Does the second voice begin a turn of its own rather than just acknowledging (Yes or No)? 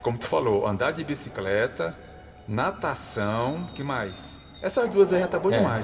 Yes